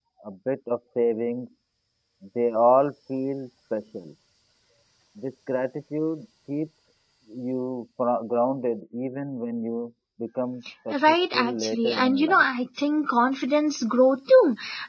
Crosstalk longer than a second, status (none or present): present